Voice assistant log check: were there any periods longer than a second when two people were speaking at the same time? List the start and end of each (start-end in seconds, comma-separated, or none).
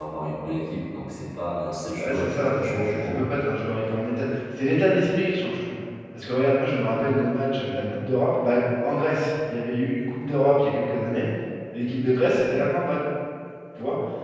2.0-3.4